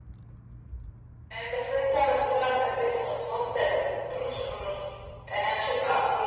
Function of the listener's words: taking over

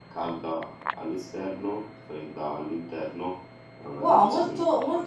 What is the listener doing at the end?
taking over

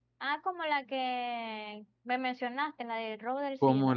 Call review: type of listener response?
taking over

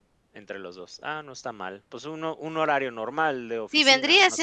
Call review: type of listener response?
taking over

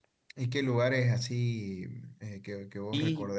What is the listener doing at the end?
taking over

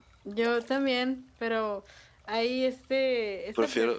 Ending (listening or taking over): listening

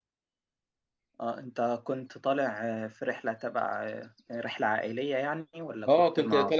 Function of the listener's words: taking over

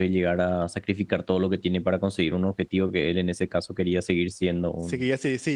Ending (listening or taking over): taking over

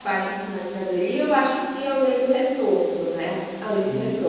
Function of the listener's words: taking over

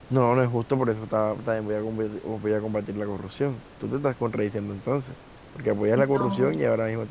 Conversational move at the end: listening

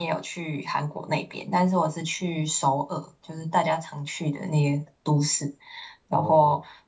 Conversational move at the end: listening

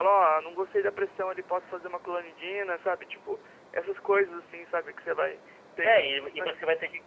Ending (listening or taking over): taking over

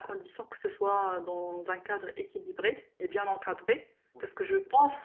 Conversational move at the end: listening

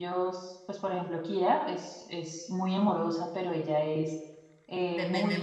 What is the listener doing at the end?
listening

